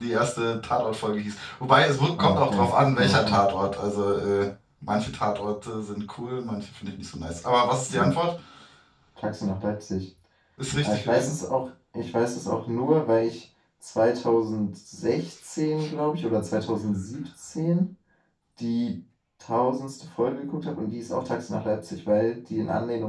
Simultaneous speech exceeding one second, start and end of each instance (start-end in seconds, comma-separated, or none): 2.2-3.4